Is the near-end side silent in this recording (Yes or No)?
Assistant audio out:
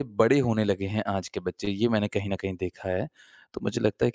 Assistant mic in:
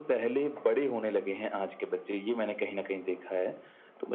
Yes